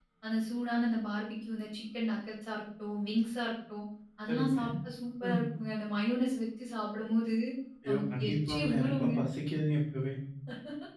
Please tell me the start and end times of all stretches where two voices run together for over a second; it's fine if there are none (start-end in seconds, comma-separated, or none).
7.9-9.1